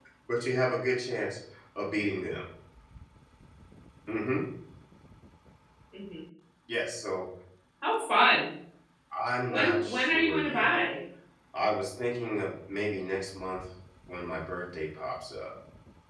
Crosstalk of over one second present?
Yes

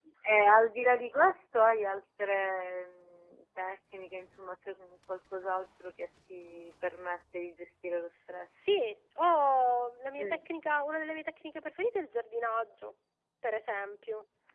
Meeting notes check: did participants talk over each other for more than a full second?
No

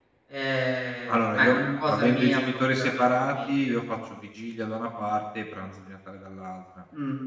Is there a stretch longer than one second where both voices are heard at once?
Yes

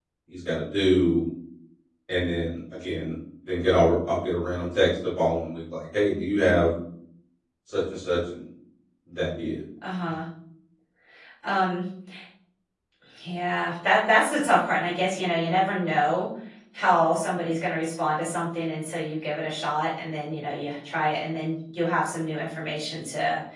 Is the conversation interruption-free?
Yes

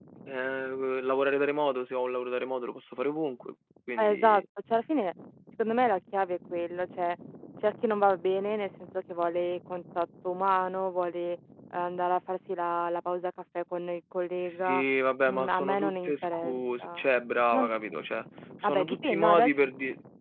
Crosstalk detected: Yes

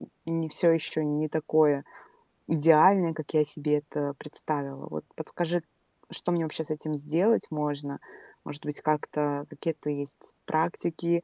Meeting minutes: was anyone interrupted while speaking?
No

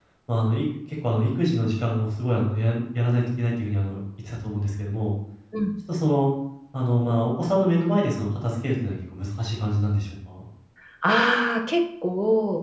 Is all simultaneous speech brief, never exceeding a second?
Yes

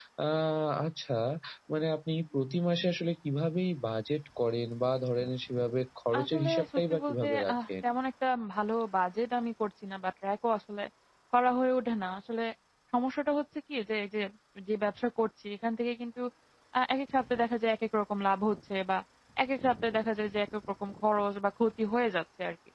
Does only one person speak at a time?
No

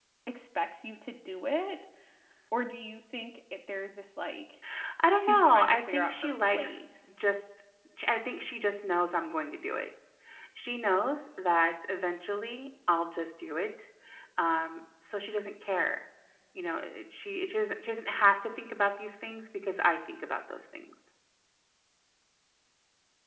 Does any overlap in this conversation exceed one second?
Yes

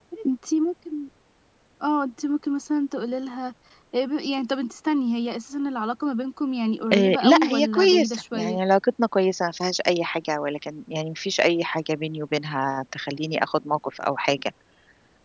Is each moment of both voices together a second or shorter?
No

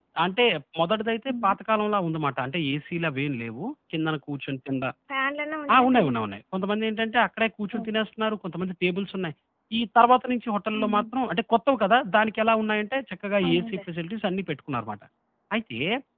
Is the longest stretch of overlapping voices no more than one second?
Yes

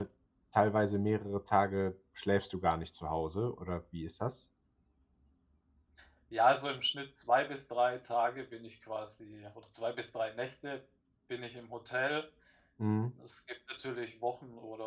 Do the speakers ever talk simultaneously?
No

